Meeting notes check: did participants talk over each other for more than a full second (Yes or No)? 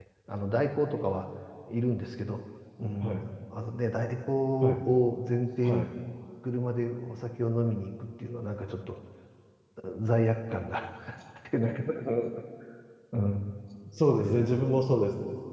No